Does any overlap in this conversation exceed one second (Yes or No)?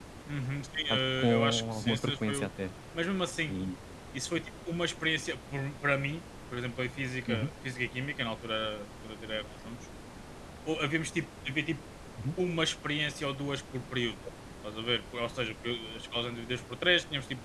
Yes